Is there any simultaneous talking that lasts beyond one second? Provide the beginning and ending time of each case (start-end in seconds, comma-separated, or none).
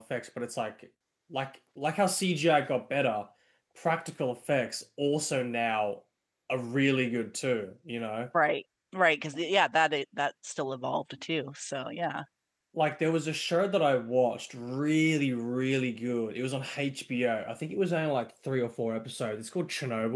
none